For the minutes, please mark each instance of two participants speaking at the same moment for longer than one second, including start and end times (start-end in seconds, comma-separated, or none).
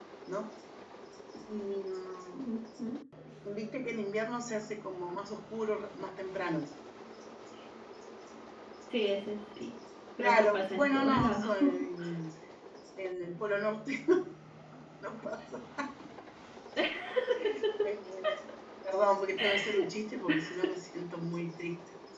10.2-11.6